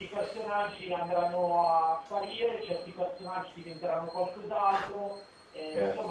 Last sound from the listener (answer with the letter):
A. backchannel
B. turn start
B